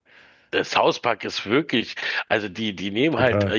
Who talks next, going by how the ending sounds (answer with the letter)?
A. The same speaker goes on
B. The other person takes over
A